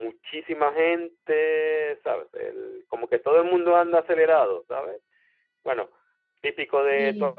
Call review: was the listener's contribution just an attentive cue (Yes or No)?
Yes